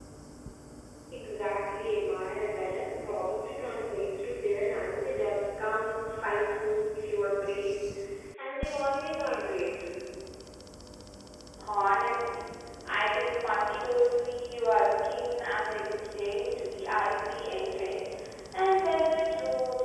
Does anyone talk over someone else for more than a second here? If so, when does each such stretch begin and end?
none

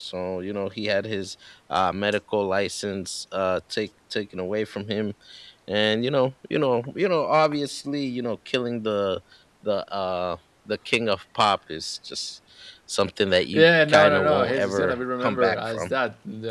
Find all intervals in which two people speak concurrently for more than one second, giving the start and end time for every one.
13.5-15.9

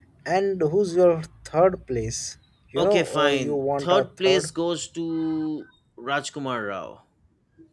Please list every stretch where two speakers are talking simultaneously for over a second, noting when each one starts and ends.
2.8-4.5

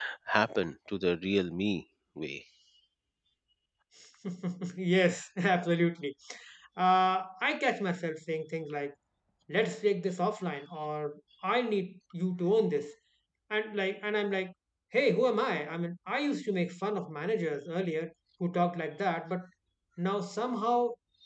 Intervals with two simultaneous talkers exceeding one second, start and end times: none

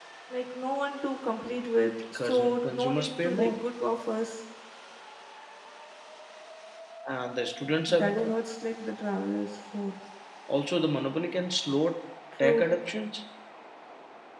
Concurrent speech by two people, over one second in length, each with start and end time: 2.2-3.5

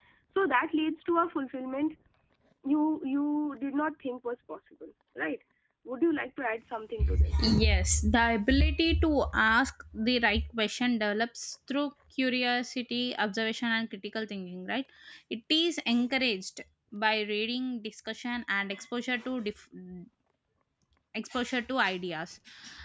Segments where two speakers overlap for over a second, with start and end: none

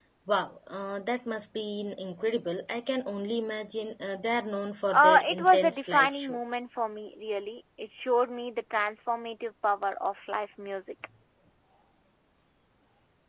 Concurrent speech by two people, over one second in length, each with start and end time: 4.9-6.4

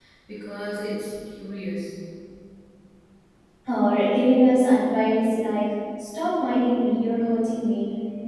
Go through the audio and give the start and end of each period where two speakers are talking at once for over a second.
none

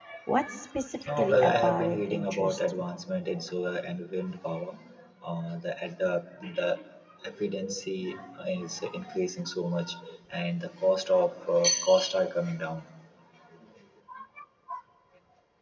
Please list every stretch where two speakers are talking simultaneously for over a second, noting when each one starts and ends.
1.1-2.8

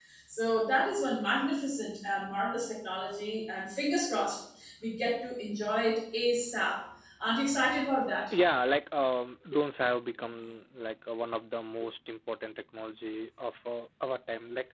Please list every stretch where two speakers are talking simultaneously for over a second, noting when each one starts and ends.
none

